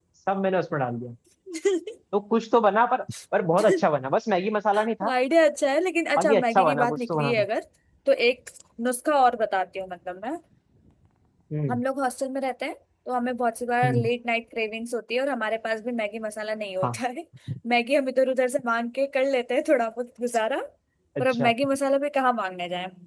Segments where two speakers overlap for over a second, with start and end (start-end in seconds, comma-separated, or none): 6.2-7.5